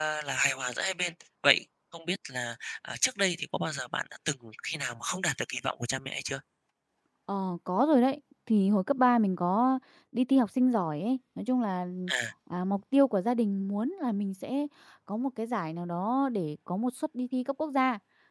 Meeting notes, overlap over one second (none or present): none